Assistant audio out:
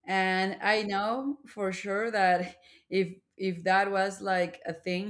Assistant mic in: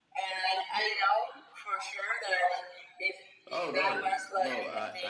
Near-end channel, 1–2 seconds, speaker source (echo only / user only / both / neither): echo only